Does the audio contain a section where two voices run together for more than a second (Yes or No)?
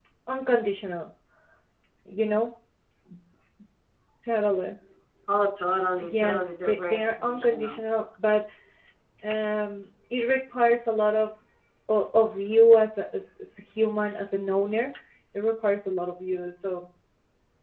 Yes